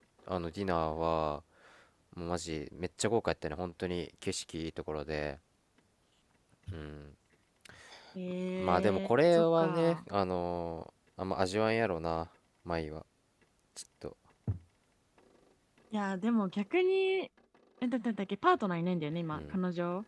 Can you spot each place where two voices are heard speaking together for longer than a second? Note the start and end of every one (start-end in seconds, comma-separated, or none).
8.6-10.0